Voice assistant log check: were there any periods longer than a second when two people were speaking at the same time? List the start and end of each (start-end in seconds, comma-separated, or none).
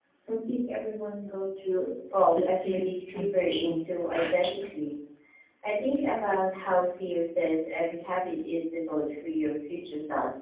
2.3-3.7